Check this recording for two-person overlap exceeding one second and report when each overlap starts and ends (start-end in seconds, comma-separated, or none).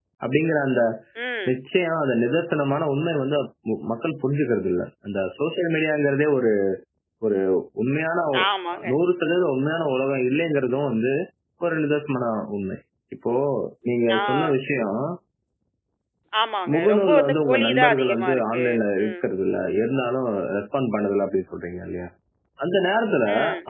16.7-18.6